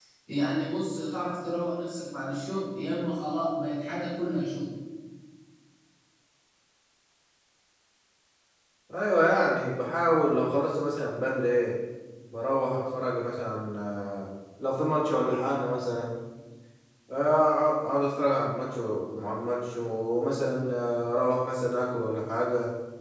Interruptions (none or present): none